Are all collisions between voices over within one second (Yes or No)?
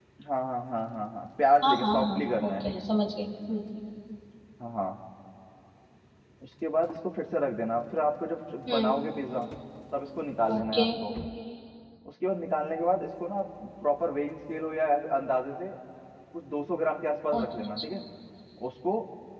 No